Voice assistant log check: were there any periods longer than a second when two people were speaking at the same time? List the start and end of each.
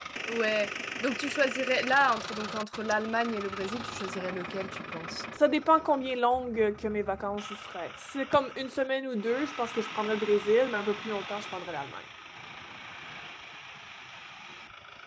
none

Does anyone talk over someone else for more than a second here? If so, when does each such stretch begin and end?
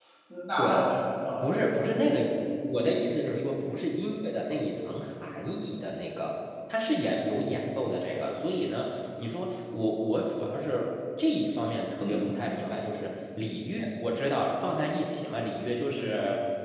none

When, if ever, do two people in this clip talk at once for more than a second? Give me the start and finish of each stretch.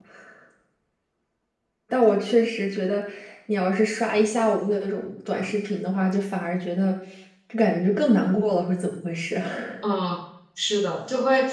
none

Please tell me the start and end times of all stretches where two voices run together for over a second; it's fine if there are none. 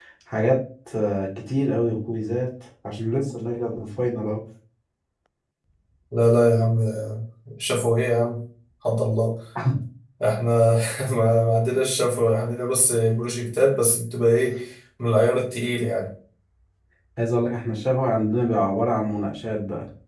none

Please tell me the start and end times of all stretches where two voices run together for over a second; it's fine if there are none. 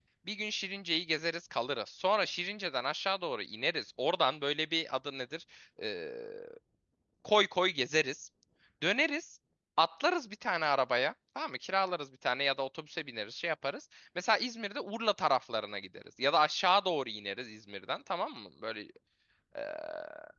none

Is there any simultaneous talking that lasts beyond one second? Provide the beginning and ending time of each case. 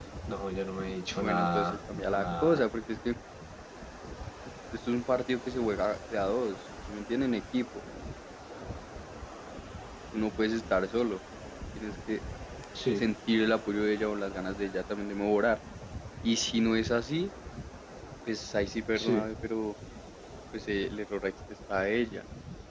1.1-2.7

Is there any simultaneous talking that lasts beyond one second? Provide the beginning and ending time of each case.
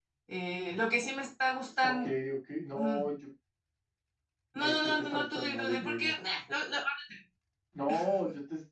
4.6-6.1

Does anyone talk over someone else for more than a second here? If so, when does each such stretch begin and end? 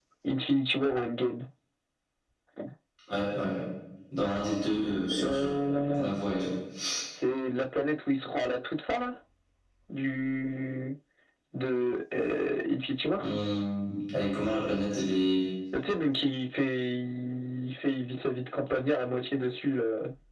none

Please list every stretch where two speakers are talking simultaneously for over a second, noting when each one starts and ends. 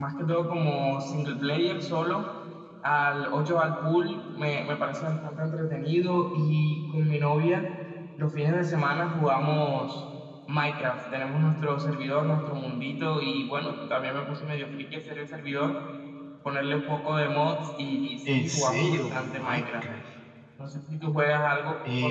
18.3-19.9

